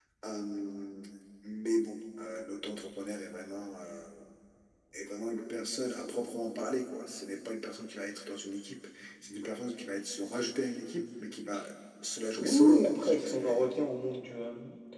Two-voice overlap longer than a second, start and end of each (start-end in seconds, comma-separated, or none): 12.4-13.7